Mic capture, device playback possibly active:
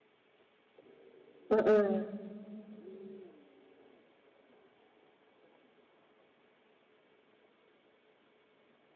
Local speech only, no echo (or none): Mhm.